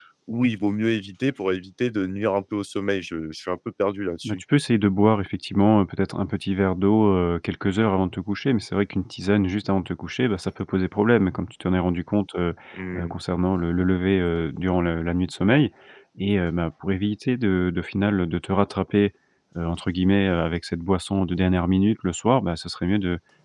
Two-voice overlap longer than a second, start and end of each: none

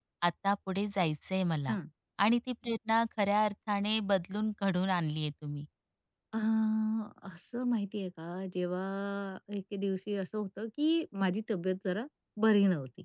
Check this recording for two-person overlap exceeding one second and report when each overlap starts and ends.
none

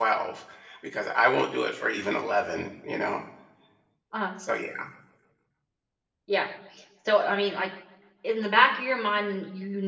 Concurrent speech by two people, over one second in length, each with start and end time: none

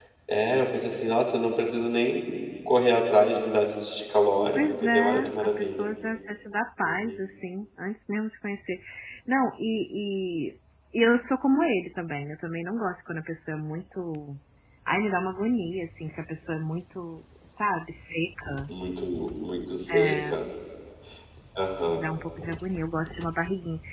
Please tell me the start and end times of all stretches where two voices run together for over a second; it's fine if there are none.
4.5-5.9

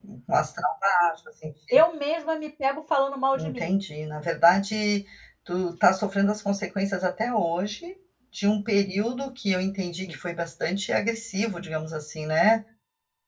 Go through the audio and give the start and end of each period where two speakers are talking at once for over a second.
none

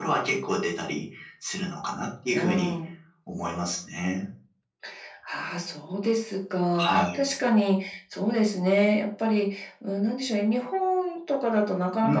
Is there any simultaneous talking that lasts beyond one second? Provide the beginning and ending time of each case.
none

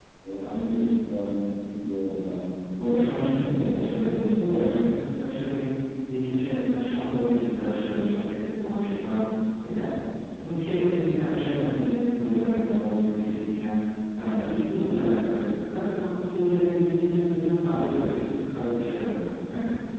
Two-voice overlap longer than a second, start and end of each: 2.8-4.1

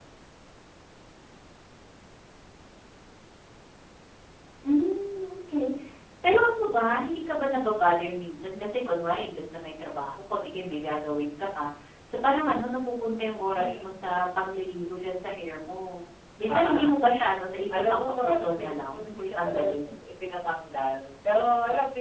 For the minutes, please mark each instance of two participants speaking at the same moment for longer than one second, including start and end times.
17.8-19.9

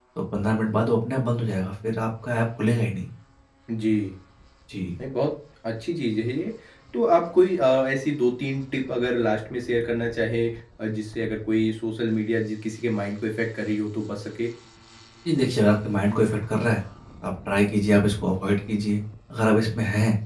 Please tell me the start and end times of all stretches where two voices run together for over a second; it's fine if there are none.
none

